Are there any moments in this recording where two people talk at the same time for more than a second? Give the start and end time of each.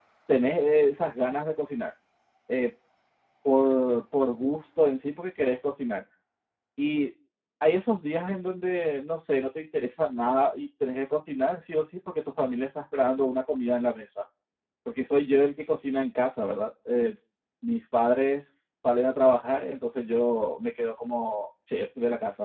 none

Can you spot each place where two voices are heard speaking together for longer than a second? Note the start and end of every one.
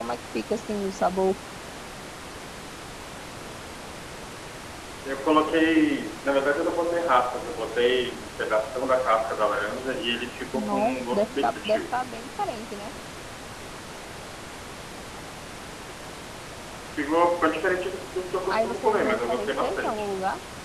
10.5-11.8, 18.5-20.0

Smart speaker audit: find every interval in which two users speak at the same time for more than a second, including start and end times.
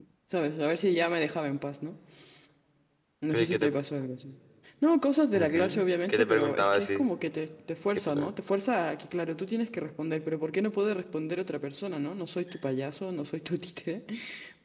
5.3-7.1

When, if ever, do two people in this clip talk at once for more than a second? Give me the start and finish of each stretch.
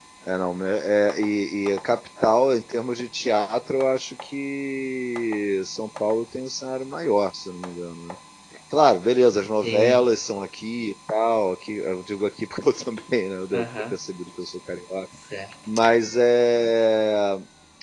none

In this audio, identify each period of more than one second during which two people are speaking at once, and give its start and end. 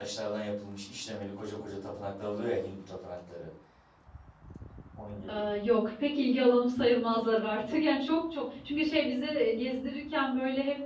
none

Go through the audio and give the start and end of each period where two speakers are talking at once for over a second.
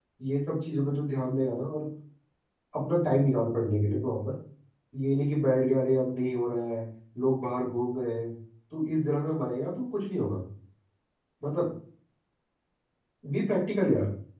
none

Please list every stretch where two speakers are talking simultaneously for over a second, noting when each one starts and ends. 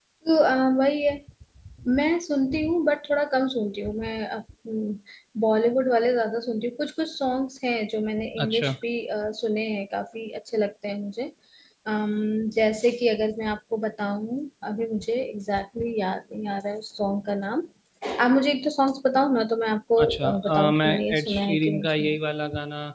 20.0-22.2

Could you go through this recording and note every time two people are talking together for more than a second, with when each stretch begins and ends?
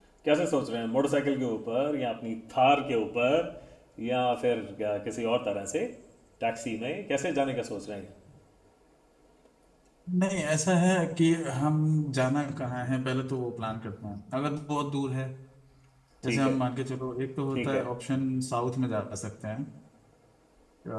none

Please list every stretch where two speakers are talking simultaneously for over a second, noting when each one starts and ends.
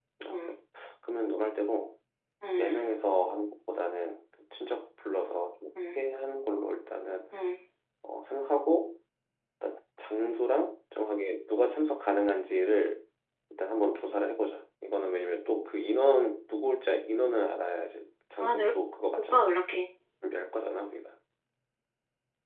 none

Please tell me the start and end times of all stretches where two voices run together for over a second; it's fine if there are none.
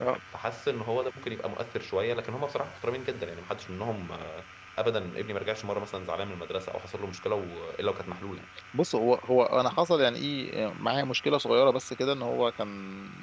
none

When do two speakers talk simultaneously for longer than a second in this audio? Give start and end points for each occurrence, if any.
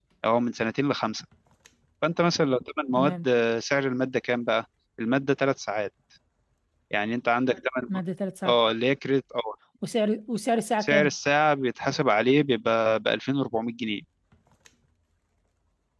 none

